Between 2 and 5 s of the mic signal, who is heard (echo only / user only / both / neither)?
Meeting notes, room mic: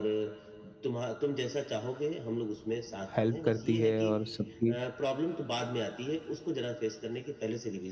both